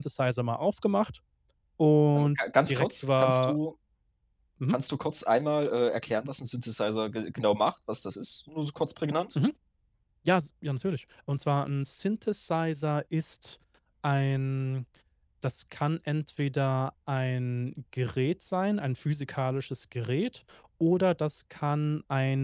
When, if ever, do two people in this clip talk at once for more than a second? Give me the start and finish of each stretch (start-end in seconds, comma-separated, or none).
2.2-3.6